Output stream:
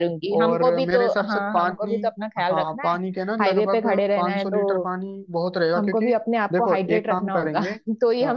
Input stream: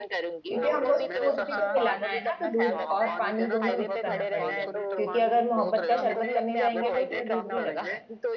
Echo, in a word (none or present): present